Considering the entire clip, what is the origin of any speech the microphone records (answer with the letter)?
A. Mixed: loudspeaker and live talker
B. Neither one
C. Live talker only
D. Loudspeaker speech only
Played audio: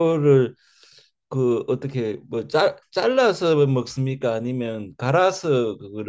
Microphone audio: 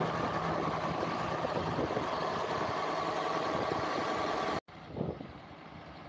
B